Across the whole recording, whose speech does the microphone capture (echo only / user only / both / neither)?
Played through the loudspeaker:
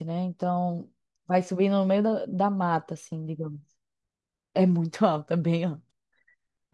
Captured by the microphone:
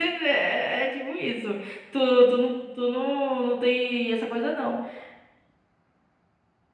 user only